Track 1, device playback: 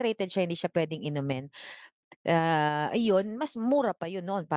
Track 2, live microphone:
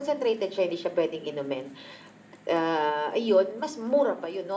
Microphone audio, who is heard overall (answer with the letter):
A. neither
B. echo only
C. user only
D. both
B